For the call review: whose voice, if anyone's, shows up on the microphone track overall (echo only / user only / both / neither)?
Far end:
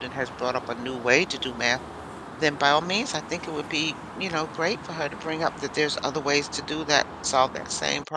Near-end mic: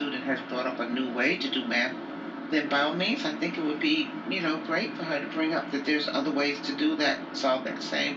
echo only